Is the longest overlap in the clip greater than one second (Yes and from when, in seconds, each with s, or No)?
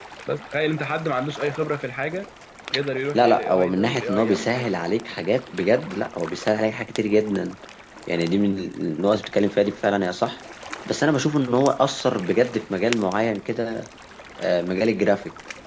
Yes, from 3.1 s